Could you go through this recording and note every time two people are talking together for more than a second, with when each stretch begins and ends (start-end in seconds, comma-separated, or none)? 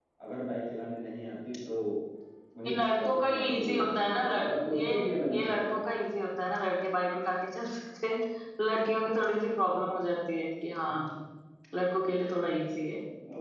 2.6-5.0